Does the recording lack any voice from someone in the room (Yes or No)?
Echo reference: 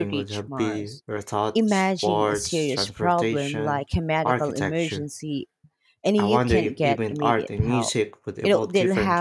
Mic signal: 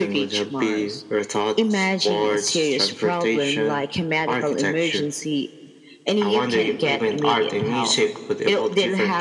Yes